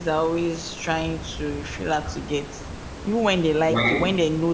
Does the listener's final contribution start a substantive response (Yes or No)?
No